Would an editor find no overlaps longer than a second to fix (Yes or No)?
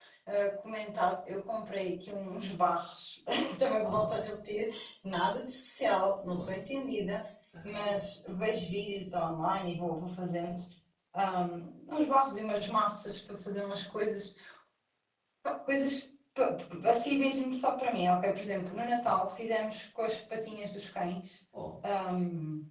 Yes